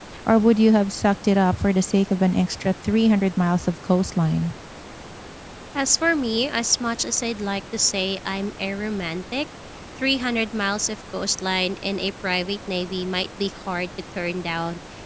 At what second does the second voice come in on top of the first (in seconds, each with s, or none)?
none